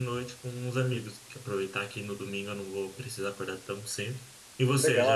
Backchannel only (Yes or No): No